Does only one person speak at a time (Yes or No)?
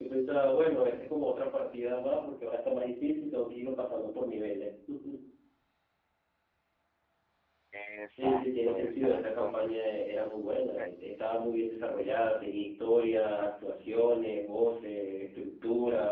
No